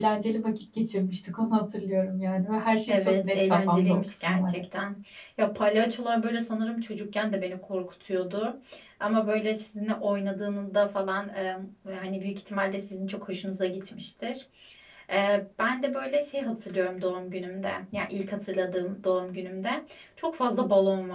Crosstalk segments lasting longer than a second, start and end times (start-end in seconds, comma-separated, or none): 2.9-4.6